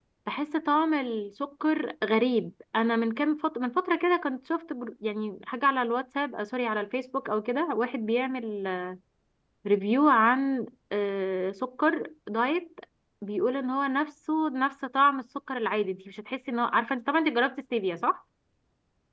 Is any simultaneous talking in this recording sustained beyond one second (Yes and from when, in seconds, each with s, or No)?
No